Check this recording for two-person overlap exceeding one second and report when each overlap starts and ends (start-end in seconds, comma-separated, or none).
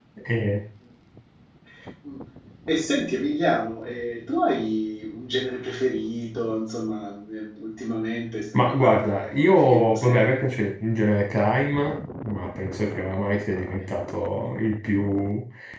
8.5-10.4